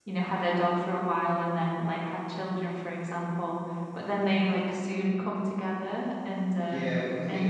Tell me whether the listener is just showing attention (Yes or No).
No